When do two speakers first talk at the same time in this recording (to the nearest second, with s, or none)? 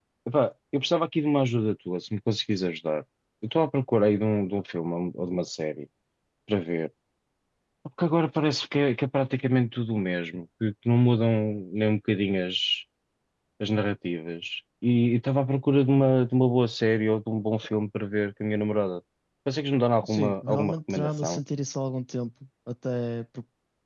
20 s